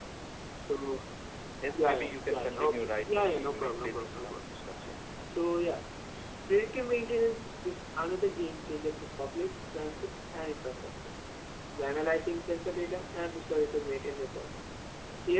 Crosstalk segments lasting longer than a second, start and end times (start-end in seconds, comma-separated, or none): 1.7-4.5